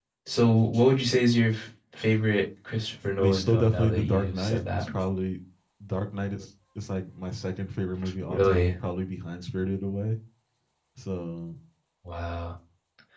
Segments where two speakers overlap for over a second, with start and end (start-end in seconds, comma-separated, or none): 3.2-4.9